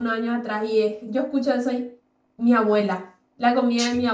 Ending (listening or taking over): listening